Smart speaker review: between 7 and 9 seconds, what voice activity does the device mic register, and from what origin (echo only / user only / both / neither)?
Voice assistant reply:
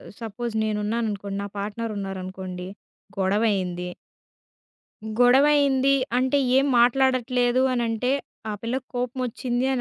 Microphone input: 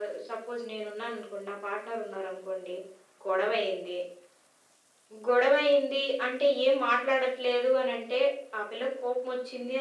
echo only